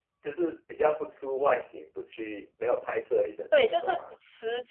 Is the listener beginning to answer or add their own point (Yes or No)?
Yes